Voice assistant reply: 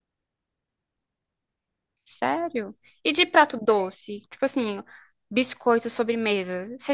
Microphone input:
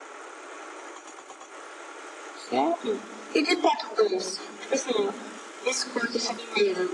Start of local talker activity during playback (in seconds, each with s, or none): none